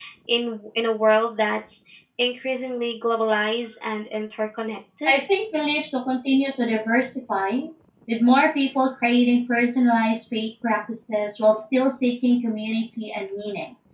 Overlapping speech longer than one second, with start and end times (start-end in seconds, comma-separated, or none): none